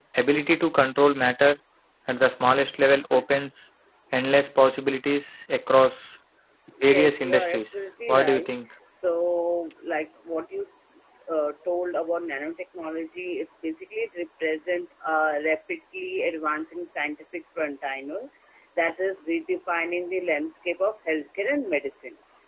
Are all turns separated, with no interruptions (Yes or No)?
No